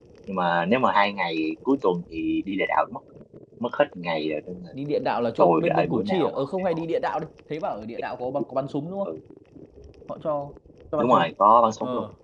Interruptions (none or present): present